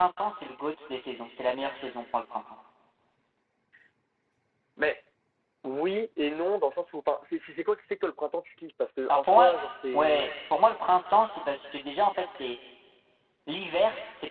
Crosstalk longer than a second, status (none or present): none